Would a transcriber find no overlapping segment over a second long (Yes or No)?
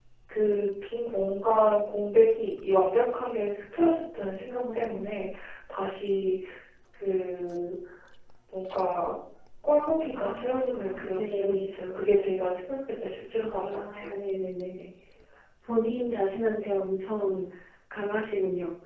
No